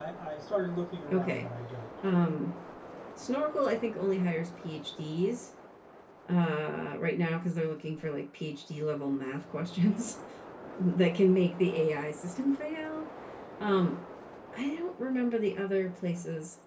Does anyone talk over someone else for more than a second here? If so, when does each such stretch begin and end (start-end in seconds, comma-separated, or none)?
none